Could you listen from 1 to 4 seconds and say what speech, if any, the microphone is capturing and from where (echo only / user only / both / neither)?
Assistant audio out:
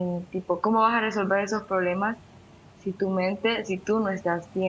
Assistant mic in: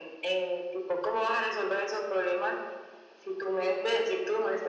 echo only